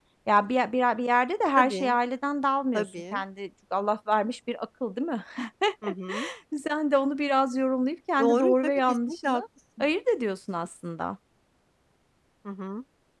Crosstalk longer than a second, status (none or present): present